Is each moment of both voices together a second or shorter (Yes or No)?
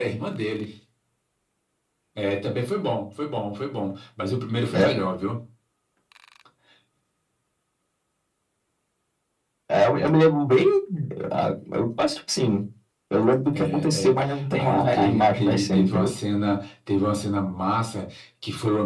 No